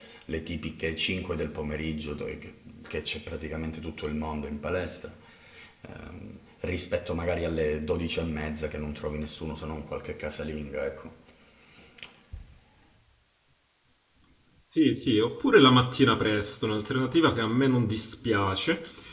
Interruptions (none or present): none